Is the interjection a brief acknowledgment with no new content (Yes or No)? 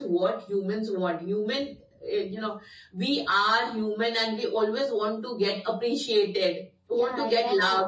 No